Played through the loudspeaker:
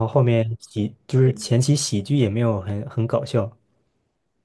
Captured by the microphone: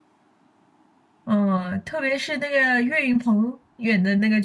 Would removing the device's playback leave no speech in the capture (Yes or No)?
No